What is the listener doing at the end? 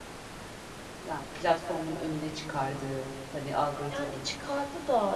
taking over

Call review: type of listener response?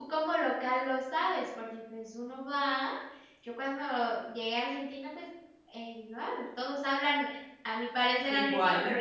listening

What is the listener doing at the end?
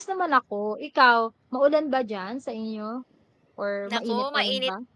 taking over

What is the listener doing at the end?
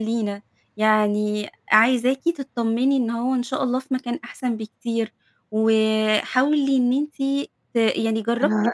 taking over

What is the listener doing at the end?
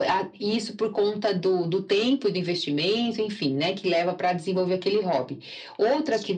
listening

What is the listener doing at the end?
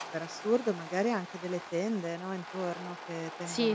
listening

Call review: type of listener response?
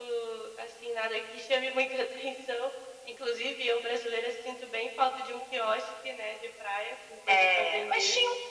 taking over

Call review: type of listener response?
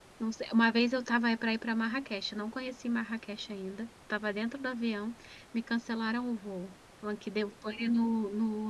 listening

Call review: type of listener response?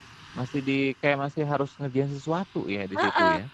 taking over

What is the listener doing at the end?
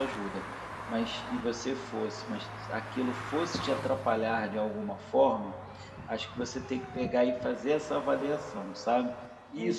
listening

